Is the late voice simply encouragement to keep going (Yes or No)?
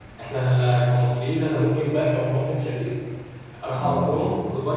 Yes